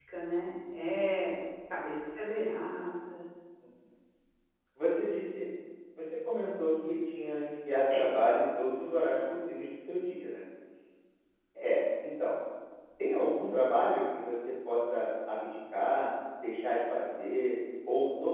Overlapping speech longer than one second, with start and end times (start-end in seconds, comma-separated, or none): none